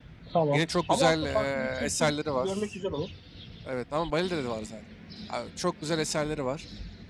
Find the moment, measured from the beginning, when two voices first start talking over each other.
0.5 s

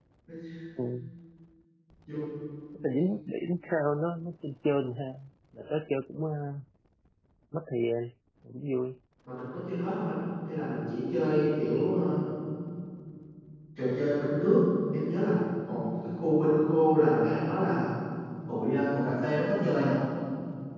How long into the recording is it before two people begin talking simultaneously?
none

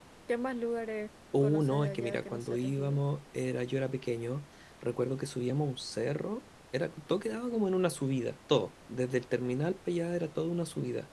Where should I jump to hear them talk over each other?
1.3 s

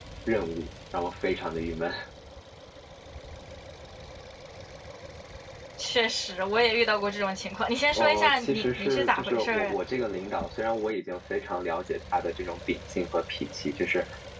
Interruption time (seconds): 7.9 s

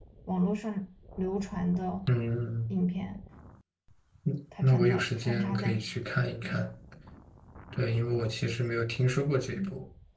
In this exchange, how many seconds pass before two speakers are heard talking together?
4.6 s

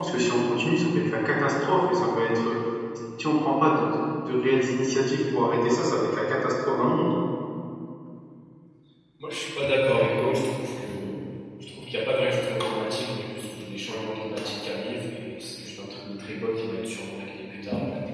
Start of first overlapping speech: none

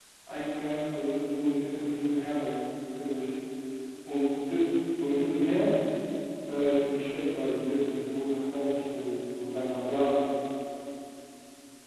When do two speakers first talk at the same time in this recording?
none

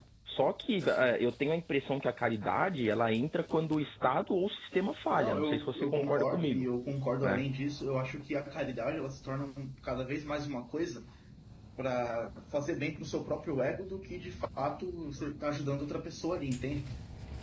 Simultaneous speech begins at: 5.1 s

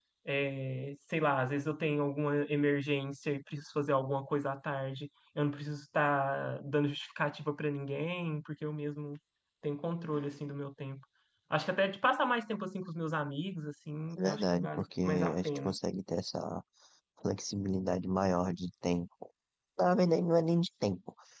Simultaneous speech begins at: 14.2 s

